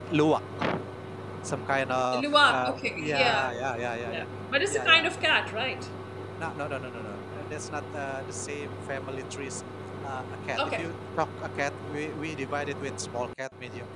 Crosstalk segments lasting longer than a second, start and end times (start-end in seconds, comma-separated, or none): 2.2-3.5